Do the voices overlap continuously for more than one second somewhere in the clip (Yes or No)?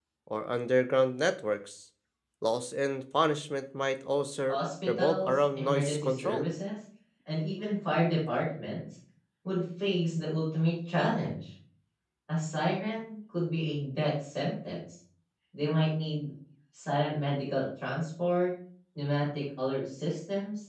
Yes